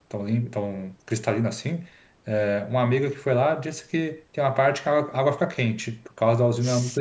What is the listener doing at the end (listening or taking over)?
taking over